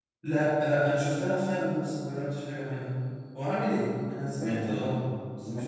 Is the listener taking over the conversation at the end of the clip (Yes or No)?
Yes